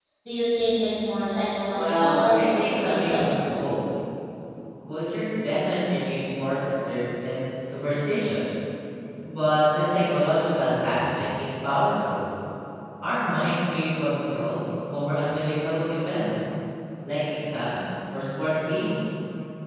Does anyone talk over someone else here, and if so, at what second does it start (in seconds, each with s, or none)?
1.7 s